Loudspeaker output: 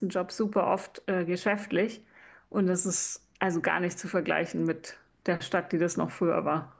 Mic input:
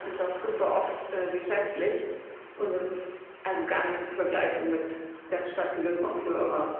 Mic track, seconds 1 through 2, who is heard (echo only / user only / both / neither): echo only